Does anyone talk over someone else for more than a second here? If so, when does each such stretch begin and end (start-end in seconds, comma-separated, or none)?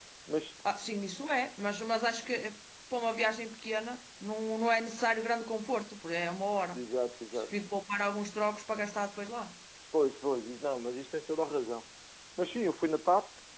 none